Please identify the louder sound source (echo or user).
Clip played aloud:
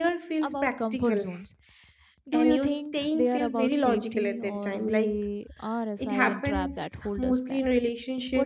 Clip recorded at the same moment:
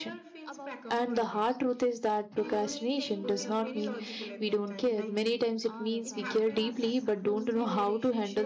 user